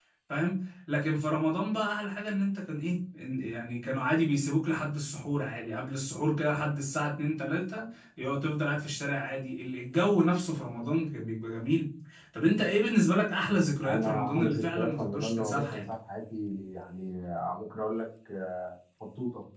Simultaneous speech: Yes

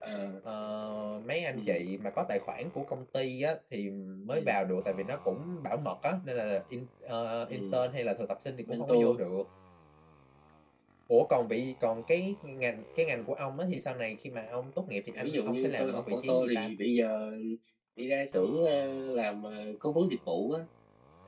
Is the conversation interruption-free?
No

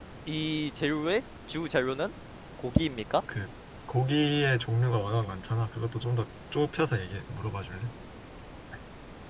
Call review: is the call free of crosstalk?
Yes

